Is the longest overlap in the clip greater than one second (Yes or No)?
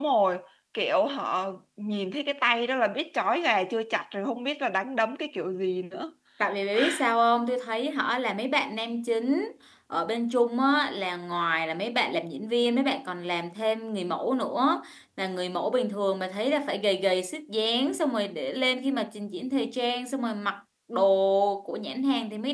No